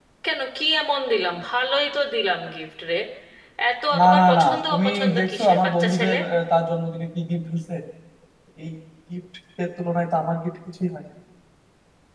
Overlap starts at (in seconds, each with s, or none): 4.0 s